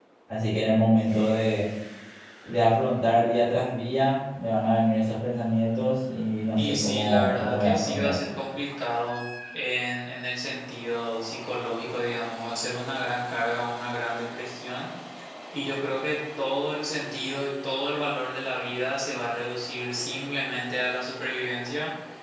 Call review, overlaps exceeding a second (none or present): present